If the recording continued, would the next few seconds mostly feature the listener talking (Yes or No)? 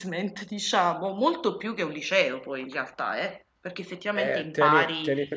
Yes